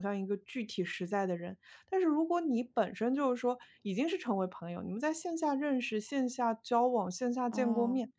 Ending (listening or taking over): listening